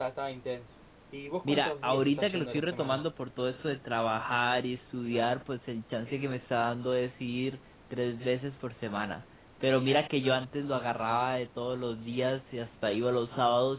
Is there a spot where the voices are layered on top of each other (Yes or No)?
Yes